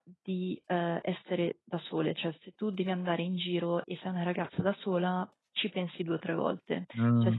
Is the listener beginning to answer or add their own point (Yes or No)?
No